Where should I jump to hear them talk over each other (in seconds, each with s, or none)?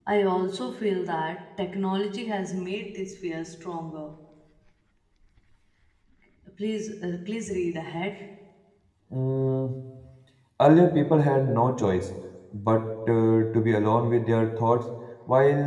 none